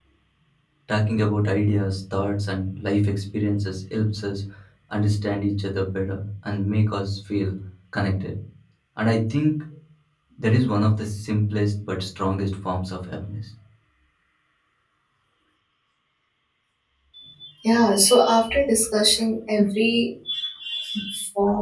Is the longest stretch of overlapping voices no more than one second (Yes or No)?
Yes